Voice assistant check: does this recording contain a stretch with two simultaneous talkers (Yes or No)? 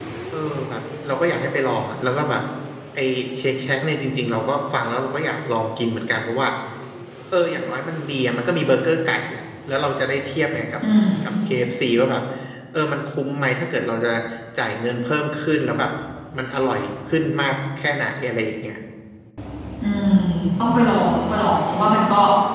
No